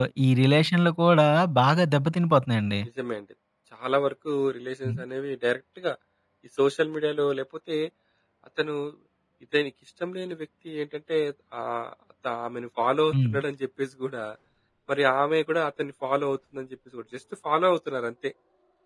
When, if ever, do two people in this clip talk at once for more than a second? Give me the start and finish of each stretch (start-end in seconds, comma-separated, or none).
none